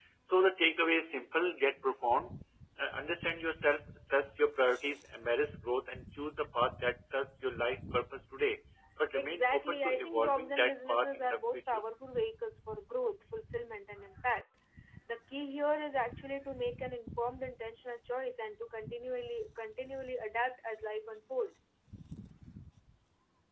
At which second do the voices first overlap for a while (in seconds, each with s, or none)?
9.1 s